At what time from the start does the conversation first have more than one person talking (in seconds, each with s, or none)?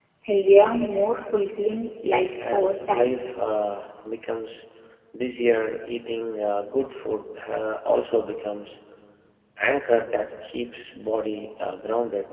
2.0 s